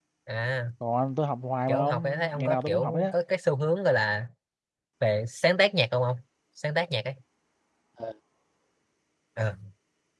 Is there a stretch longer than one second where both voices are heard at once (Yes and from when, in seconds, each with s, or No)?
Yes, from 1.7 s